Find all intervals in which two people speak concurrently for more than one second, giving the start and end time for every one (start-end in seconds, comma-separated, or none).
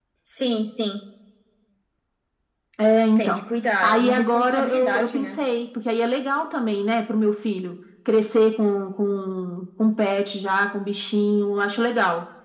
3.8-5.3